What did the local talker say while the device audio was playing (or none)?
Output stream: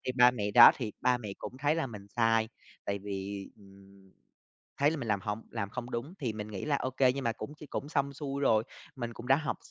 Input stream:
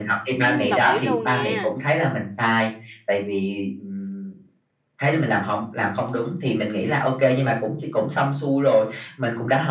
Ừm, đồng ý luôn nha.